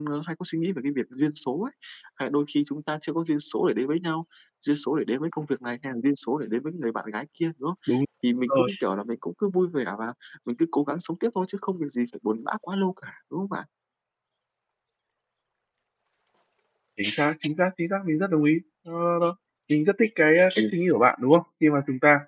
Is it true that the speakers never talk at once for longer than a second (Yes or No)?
Yes